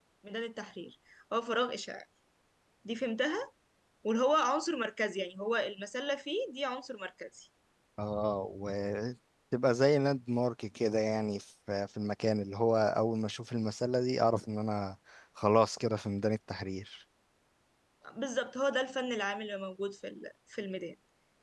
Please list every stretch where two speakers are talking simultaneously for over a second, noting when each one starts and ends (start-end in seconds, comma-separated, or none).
none